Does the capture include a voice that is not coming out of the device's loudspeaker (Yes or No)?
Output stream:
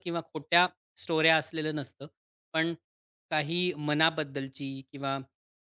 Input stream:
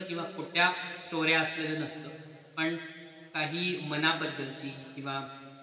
No